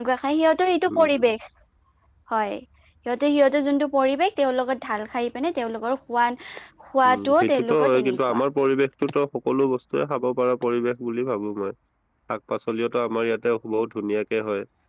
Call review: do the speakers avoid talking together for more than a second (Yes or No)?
No